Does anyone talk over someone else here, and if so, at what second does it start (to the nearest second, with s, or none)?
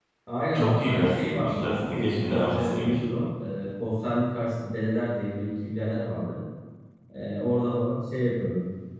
1 s